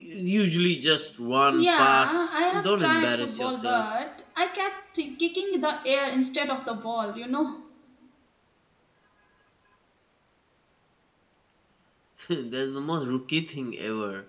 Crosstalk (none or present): present